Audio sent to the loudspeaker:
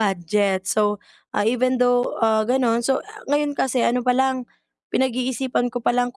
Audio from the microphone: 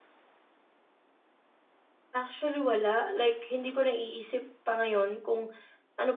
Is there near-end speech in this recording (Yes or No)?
Yes